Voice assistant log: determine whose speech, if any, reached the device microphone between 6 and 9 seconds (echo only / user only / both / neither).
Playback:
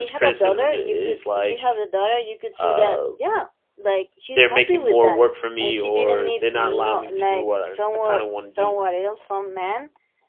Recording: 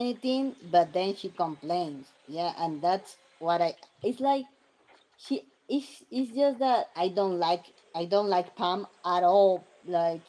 user only